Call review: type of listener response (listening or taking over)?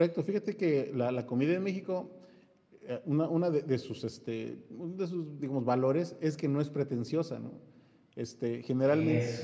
listening